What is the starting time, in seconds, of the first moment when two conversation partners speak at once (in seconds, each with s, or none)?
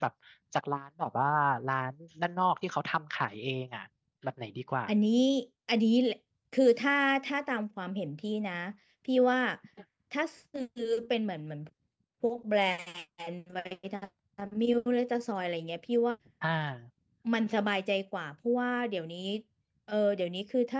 none